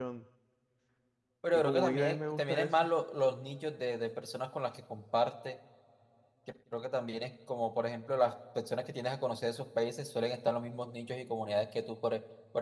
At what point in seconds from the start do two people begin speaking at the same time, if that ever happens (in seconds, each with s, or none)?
1.5 s